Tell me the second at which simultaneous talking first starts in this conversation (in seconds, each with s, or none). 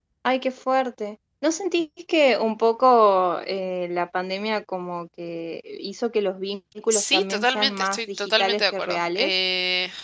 6.9 s